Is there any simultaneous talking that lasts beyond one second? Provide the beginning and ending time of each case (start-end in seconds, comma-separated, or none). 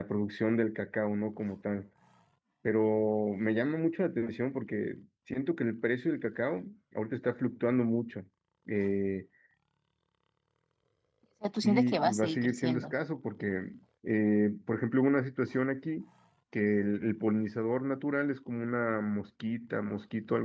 11.6-12.9